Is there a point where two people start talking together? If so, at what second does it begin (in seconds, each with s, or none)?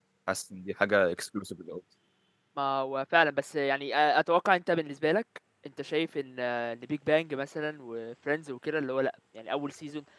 none